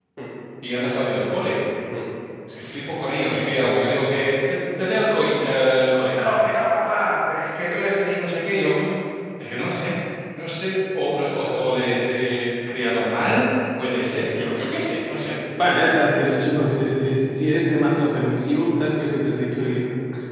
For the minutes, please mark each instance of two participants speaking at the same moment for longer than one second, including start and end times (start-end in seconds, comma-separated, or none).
none